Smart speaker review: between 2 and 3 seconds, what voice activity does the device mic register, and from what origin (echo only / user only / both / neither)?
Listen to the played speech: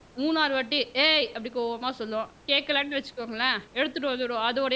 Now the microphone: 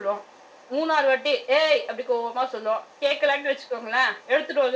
echo only